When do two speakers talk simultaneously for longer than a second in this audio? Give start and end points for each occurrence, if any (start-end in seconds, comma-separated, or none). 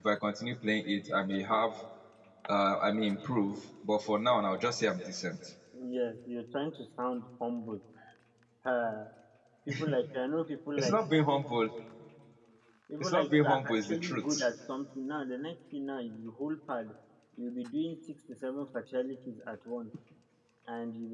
13.0-14.5